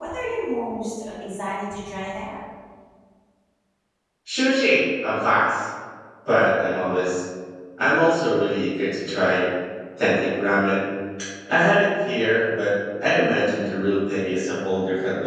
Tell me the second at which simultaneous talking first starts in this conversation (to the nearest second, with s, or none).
none